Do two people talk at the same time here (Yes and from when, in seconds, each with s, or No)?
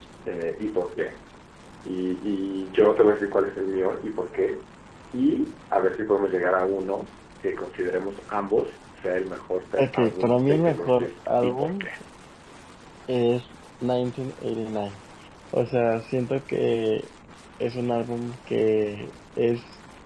Yes, from 9.8 s